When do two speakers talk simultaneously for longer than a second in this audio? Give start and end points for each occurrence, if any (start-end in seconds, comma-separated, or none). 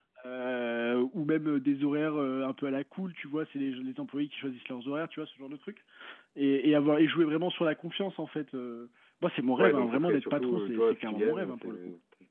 9.6-11.7